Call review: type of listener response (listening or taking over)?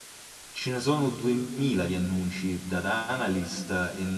listening